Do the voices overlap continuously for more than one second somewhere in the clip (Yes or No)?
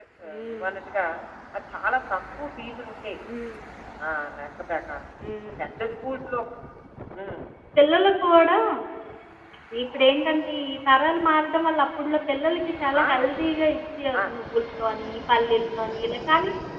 No